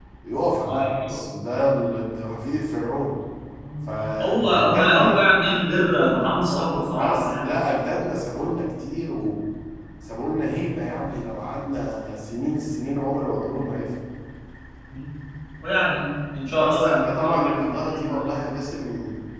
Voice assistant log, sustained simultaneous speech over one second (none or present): present